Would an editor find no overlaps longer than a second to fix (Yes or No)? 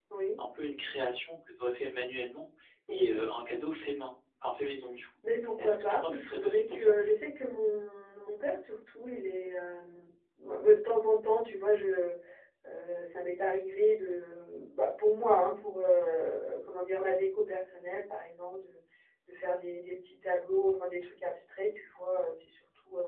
No